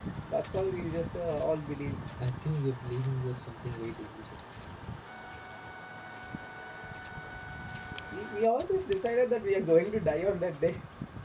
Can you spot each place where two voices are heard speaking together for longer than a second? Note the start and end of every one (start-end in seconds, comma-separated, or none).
none